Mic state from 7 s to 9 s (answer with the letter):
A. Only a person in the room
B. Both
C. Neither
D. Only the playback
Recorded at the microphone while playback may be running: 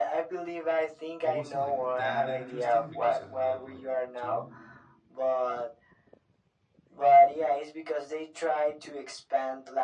D